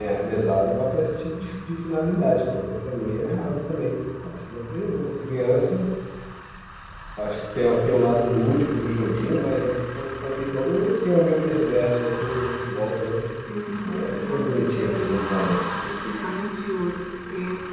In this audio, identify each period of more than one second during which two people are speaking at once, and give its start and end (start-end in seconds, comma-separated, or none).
13.8-15.7